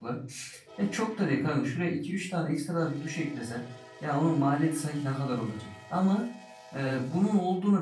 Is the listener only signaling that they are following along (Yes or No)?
Yes